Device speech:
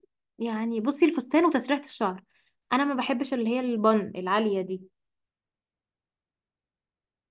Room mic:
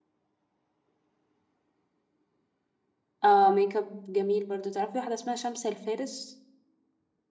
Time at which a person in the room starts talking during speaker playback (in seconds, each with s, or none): 3.2 s